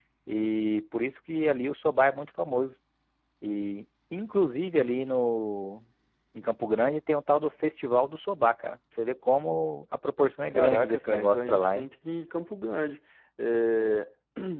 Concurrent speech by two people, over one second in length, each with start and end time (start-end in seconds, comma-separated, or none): 10.5-11.9